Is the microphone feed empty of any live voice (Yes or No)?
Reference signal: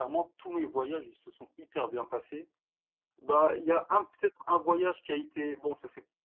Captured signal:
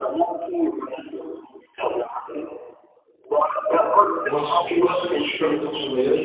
No